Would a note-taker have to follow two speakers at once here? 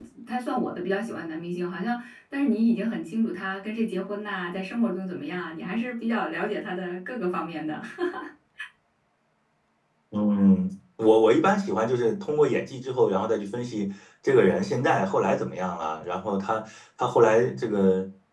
No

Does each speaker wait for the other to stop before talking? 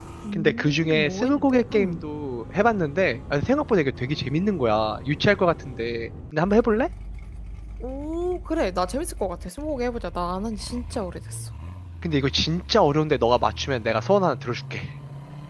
No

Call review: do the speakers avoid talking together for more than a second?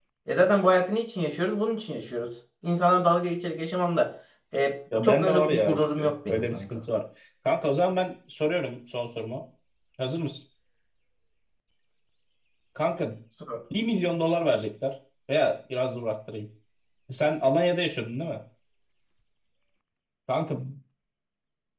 No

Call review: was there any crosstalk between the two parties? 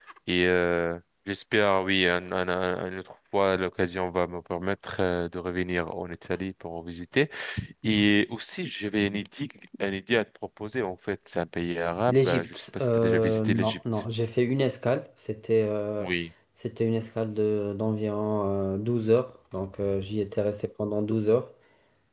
Yes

